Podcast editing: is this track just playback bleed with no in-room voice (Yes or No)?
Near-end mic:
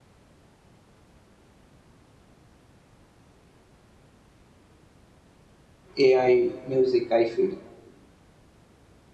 No